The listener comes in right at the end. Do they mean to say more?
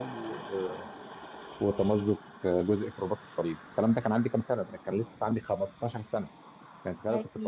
No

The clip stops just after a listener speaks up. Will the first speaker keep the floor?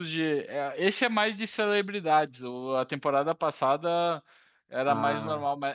Yes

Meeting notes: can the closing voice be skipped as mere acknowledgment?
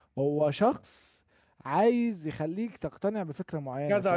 No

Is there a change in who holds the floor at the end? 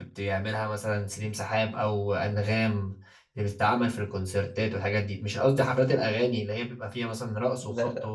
No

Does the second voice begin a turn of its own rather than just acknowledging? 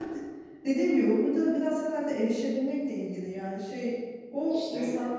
No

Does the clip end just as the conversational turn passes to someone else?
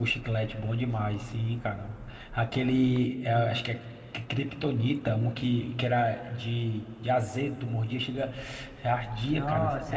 Yes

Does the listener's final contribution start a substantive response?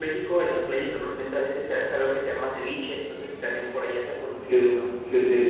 Yes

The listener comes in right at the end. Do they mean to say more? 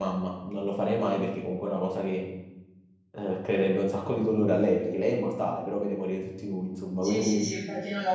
Yes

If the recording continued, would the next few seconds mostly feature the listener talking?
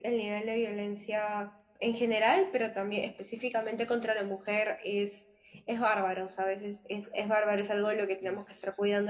No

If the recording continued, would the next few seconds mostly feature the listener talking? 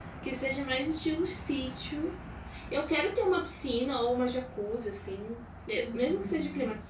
No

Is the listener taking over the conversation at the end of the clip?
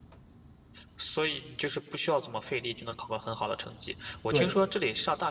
No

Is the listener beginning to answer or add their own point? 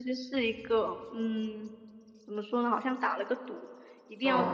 No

